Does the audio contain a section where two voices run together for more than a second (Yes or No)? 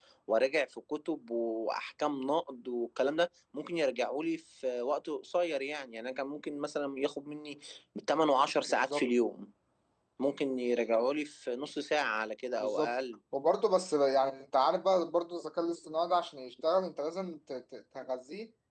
No